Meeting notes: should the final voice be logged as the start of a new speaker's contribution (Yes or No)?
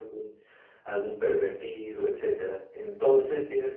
No